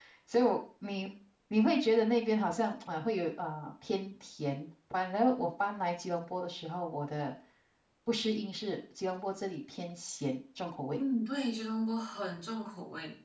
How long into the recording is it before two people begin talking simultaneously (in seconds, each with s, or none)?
none